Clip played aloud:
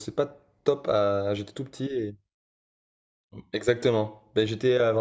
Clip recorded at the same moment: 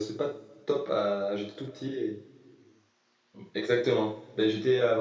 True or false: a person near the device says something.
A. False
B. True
A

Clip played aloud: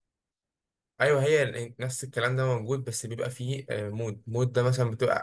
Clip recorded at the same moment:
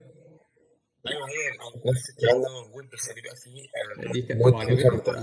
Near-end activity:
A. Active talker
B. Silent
A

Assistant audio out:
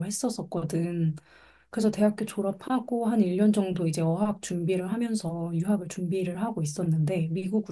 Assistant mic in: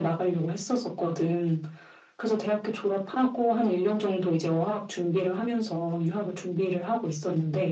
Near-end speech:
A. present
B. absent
B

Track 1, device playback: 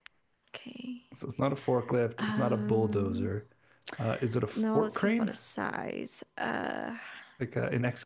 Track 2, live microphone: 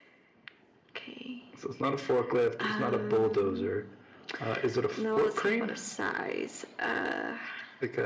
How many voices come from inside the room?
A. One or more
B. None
B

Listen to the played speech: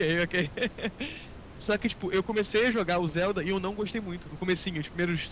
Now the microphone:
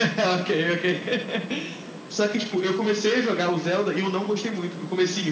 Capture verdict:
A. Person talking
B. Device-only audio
B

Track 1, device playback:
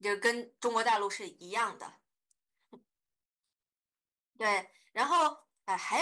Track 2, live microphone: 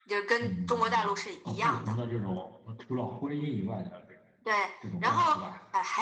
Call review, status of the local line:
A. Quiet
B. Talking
B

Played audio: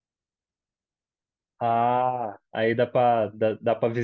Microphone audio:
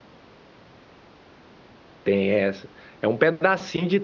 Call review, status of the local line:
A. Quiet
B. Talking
B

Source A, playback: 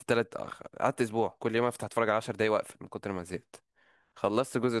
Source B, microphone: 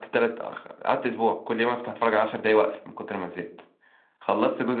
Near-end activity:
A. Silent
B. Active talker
A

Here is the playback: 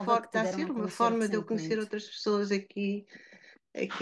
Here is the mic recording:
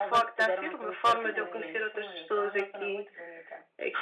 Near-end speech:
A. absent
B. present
B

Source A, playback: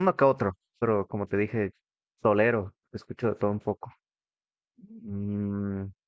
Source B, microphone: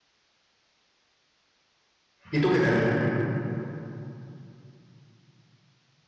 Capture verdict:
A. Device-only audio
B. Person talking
B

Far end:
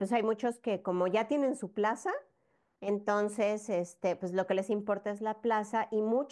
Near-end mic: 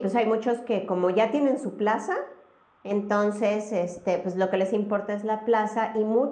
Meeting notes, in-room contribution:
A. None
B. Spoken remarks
A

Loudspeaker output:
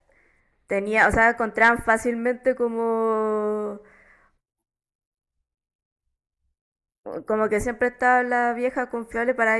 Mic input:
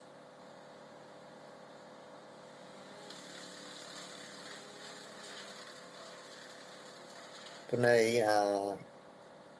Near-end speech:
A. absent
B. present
B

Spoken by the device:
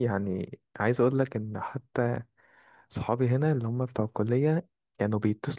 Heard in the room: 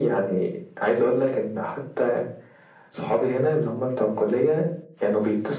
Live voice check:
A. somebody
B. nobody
B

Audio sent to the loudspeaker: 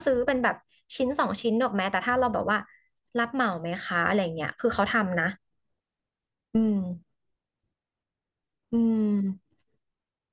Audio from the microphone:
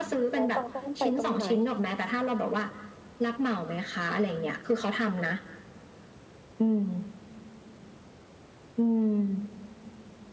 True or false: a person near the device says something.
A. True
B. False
A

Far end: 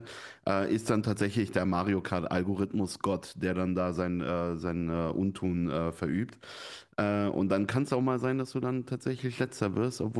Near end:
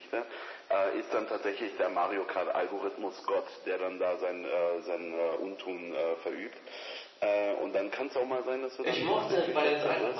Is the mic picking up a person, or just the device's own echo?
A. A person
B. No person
A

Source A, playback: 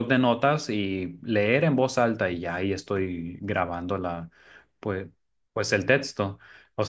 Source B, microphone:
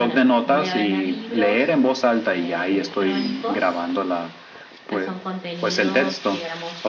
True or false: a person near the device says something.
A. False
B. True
B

